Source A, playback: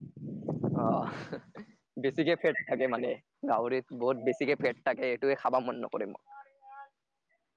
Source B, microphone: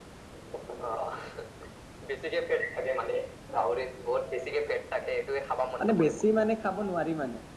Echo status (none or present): present